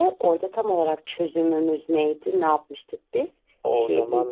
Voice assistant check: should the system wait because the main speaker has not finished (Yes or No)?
No